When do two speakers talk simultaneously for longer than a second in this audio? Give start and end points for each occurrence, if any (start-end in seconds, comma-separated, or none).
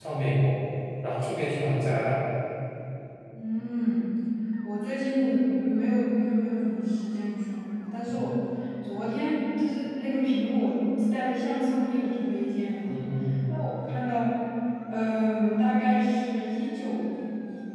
none